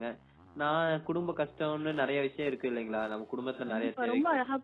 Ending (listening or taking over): taking over